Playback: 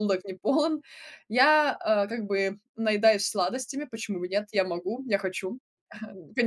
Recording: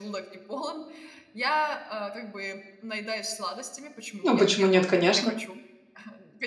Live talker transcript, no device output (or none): Ну, почему нет, конечно.